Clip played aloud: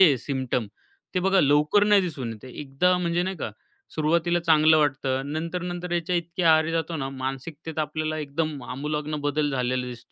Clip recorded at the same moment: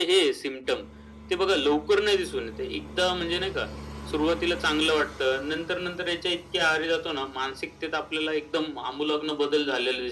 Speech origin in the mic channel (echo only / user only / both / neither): echo only